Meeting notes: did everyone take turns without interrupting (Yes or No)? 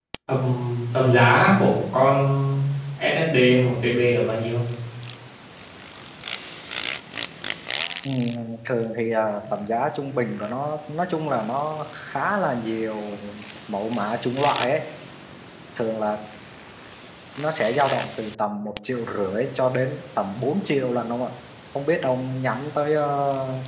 Yes